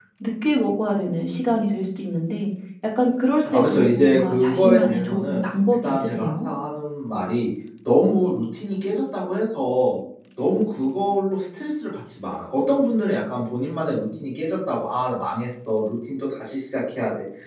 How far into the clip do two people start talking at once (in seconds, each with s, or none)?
3.4 s